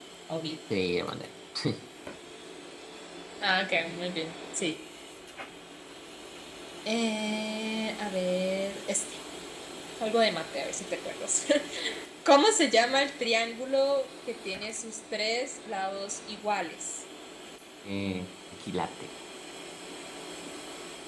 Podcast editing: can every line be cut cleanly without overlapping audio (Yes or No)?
Yes